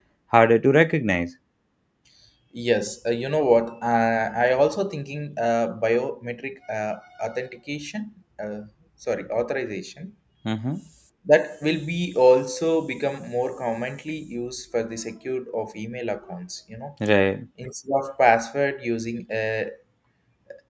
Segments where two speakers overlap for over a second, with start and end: none

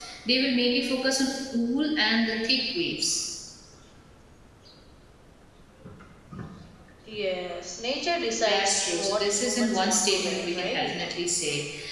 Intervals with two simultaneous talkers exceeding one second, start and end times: 8.4-10.9

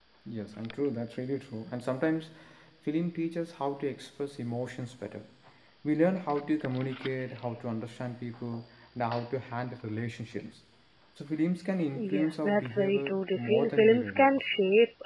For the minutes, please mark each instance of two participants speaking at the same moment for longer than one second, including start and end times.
12.2-14.4

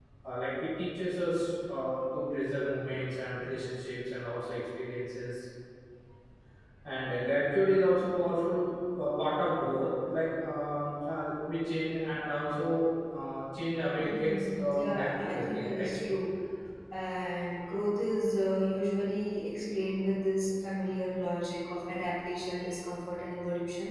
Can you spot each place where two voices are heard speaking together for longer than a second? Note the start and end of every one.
14.0-15.9

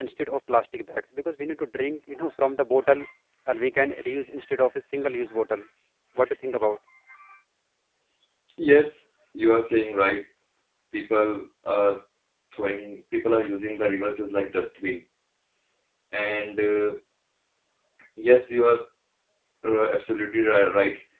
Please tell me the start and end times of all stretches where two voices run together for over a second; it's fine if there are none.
none

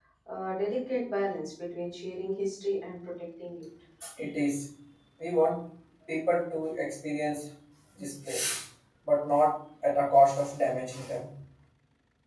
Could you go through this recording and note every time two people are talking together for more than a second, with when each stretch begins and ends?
none

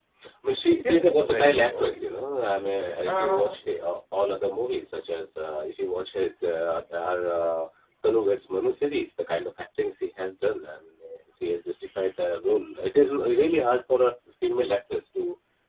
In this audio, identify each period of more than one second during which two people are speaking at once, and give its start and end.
0.8-2.0

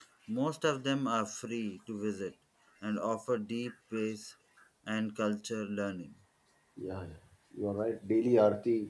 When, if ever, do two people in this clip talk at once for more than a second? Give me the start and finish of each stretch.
none

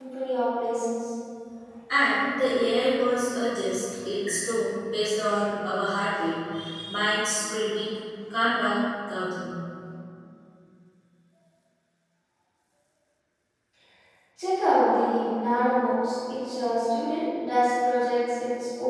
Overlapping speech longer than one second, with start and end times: none

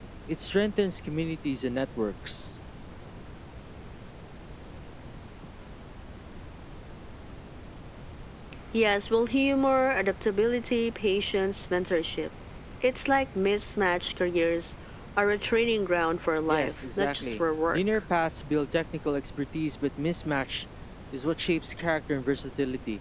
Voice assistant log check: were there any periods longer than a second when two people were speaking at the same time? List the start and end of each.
16.5-17.8

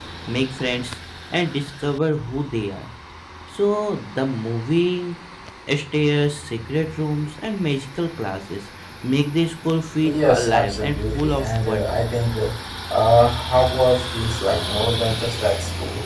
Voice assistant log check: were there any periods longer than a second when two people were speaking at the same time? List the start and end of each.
10.1-12.0

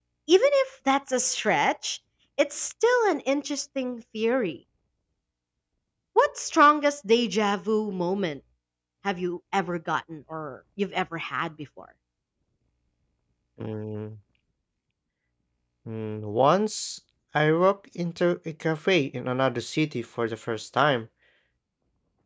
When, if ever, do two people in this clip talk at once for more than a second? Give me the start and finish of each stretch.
none

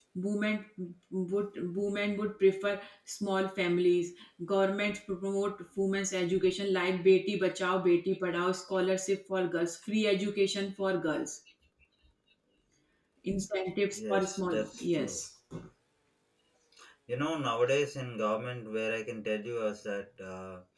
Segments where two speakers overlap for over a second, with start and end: 13.9-15.2

